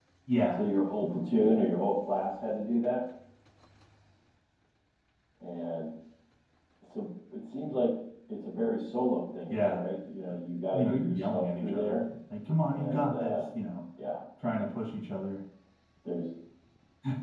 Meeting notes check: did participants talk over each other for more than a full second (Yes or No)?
Yes